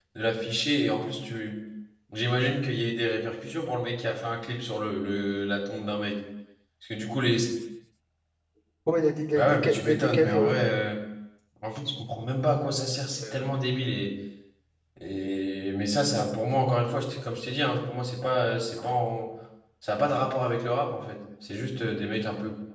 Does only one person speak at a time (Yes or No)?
No